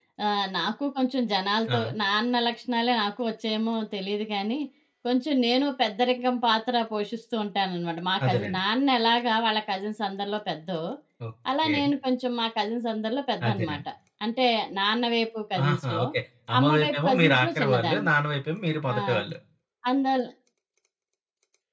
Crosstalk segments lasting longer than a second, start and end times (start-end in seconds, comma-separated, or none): 16.6-18.1